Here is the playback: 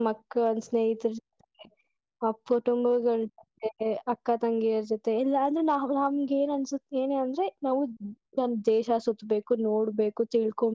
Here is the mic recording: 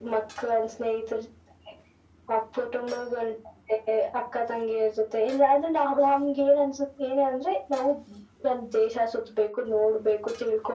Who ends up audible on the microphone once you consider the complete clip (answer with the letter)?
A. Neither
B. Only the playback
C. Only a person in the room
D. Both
B